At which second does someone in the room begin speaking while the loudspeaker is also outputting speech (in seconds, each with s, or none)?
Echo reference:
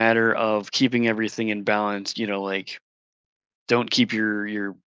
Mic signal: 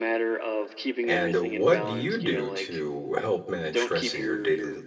1.0 s